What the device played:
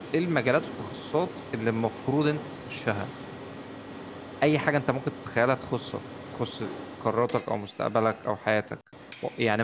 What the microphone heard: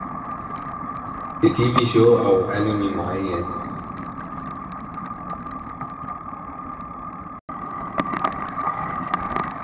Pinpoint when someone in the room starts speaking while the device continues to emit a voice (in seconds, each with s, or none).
1.4 s